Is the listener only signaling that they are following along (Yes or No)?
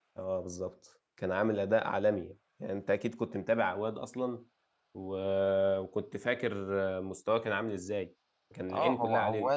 No